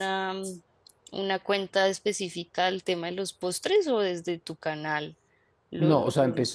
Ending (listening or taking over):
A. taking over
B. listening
A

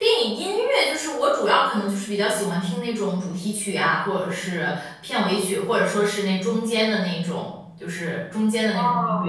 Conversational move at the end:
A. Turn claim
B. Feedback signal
A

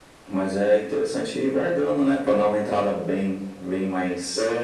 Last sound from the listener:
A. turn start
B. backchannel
A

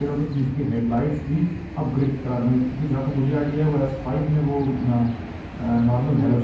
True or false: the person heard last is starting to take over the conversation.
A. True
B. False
A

